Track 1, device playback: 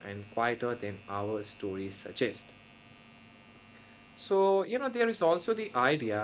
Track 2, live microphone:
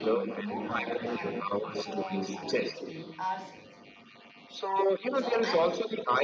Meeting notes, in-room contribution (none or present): present